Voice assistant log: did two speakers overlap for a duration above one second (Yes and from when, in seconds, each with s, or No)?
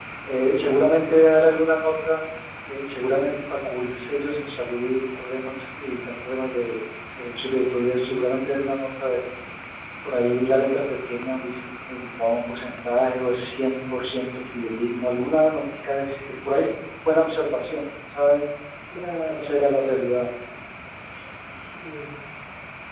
No